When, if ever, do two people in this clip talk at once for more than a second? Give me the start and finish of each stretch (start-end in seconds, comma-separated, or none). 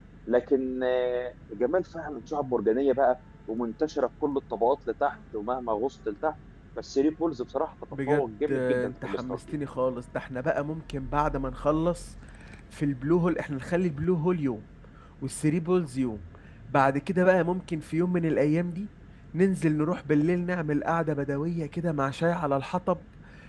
8.1-9.4